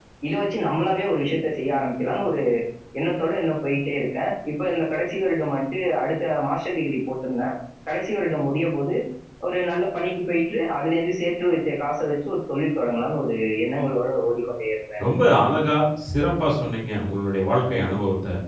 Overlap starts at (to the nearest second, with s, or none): none